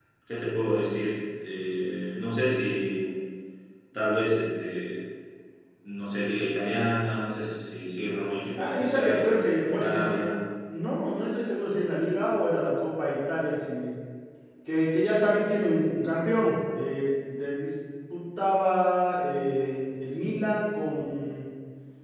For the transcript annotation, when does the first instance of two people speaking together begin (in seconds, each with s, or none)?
8.5 s